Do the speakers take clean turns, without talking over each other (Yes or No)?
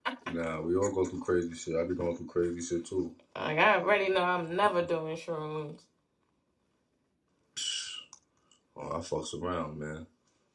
Yes